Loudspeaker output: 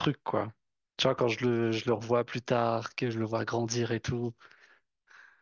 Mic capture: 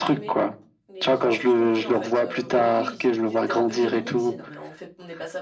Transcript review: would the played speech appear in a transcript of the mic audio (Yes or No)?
Yes